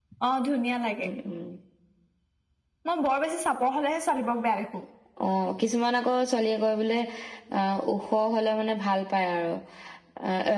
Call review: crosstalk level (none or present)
none